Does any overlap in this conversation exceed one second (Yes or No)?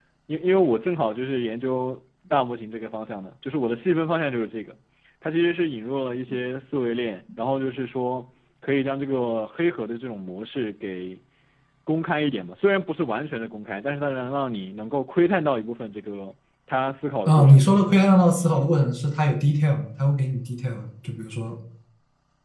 No